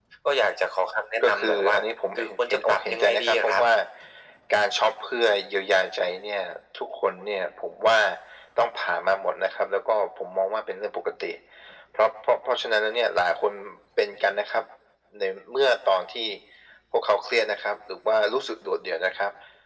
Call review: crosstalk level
present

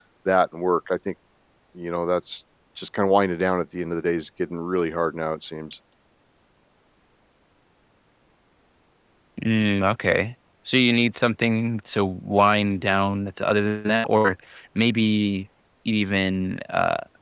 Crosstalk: none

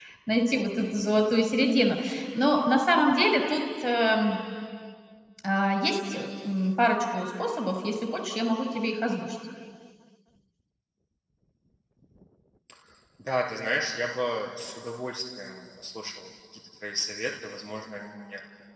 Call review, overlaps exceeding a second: none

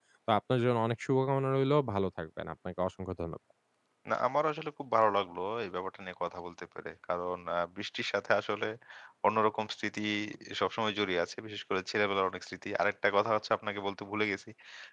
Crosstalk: none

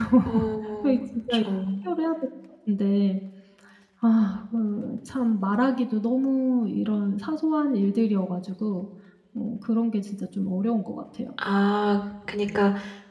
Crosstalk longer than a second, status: none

